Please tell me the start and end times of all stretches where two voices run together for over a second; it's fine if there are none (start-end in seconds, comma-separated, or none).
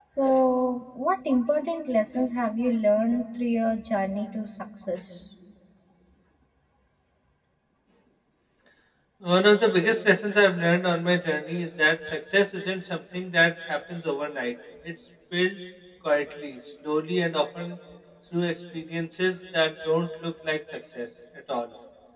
none